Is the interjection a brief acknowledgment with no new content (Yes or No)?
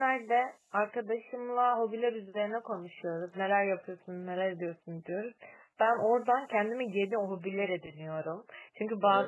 Yes